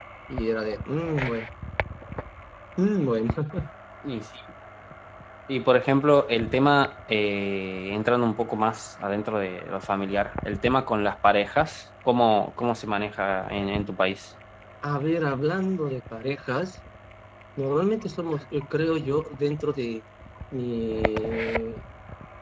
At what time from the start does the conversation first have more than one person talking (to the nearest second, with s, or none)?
none